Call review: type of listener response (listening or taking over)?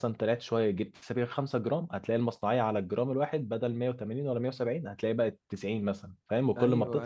taking over